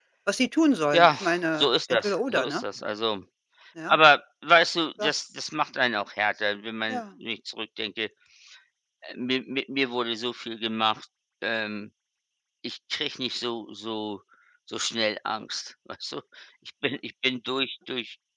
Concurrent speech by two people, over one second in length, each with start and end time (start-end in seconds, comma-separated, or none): 0.9-2.6